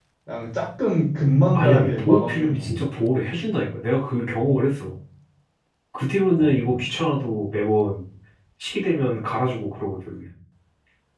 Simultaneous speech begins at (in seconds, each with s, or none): 1.6 s